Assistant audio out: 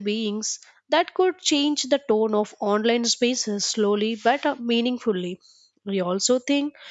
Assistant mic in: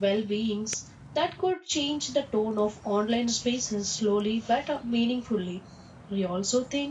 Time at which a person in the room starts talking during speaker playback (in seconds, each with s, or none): none